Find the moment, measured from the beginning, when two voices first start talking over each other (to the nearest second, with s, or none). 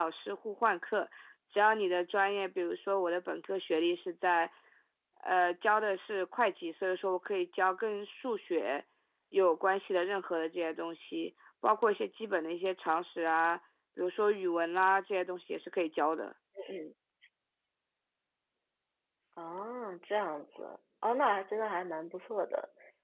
none